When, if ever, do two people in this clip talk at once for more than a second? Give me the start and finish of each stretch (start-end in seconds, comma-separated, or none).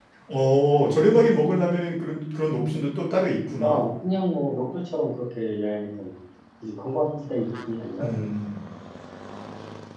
none